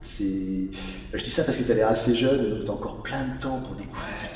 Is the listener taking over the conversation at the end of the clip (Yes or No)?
Yes